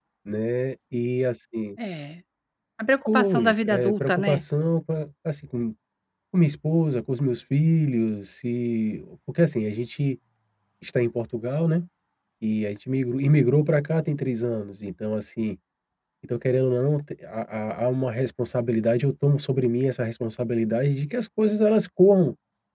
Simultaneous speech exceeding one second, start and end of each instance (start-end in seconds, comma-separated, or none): 3.1-4.4